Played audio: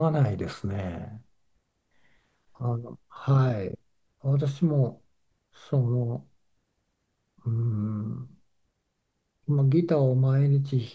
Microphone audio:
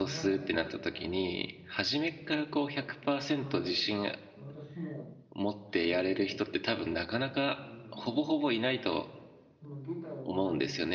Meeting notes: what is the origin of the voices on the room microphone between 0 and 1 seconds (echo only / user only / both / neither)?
both